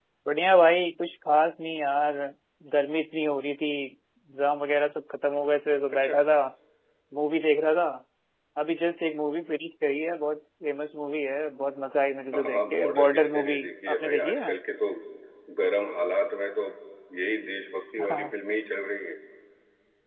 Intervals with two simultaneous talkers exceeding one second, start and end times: 12.3-14.5

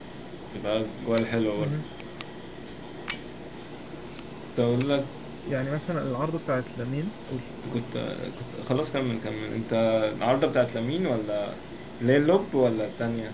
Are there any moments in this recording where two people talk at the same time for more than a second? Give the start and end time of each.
none

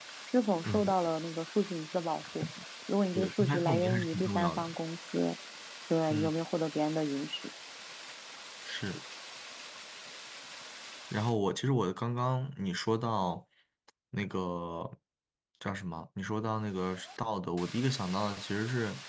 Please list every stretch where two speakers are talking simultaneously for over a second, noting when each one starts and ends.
3.1-4.7

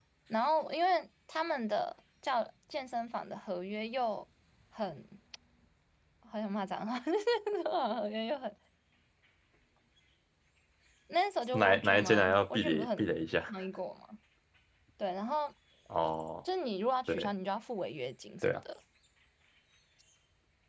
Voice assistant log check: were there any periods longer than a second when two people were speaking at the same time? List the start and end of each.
11.5-13.1

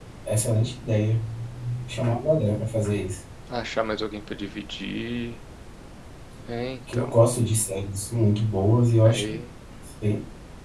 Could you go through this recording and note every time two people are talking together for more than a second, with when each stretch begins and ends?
none

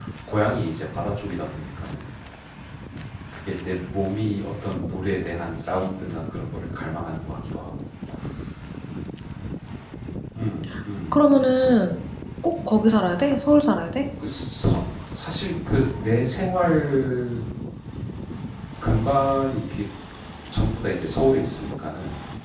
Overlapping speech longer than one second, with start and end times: none

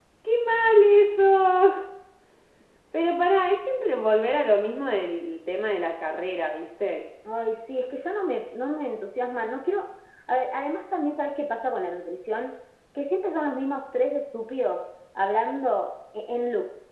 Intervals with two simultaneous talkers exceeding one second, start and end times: none

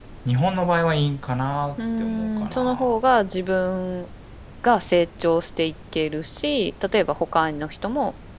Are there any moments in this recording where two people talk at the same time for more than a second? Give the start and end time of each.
1.8-3.0

